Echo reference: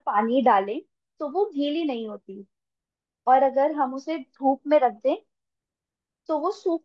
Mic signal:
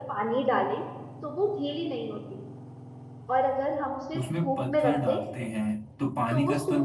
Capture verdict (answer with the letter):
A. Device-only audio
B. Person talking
B